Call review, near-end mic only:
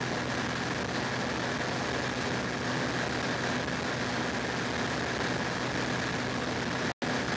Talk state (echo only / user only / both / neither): neither